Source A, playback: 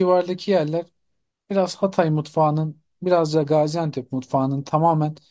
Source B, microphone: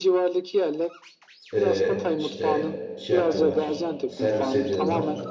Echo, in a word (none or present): present